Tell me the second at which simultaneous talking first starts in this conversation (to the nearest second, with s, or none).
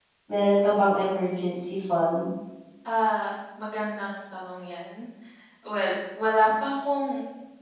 none